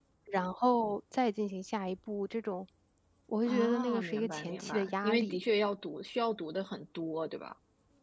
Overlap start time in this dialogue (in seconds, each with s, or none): 3.5 s